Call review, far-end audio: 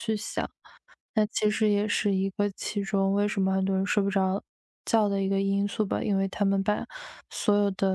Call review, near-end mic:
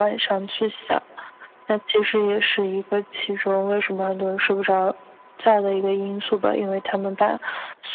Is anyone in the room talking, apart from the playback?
No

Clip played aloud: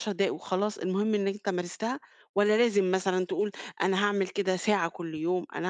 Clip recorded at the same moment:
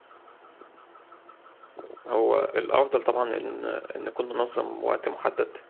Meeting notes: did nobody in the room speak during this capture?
No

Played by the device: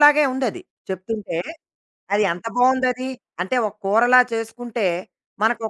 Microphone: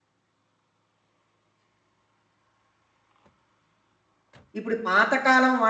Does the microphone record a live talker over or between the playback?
Yes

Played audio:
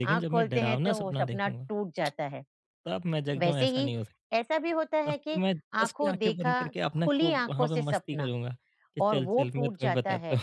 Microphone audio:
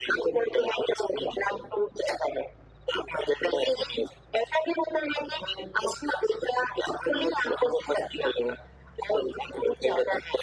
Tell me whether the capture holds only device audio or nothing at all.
Yes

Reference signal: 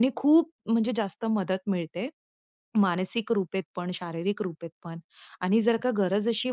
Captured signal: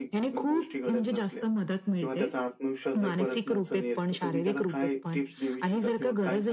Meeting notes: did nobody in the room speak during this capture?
No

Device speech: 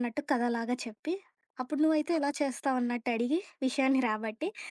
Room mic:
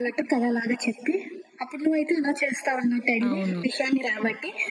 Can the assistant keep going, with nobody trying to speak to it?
No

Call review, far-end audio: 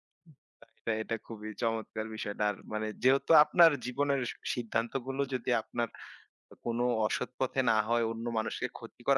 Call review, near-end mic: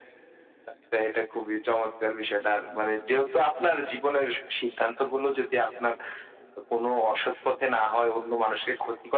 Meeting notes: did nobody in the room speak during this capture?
Yes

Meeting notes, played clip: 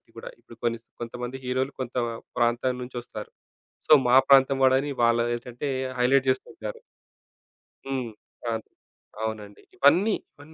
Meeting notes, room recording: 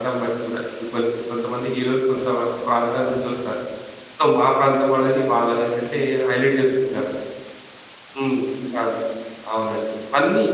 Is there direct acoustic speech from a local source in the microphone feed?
No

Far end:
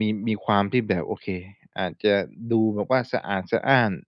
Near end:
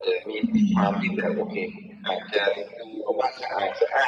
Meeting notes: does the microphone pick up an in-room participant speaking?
Yes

